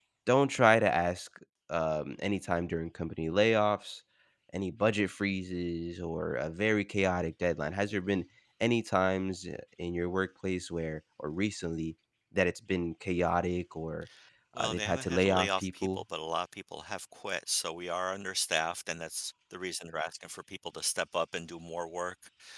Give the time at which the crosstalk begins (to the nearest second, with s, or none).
15 s